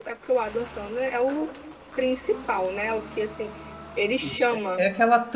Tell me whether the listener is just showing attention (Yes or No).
No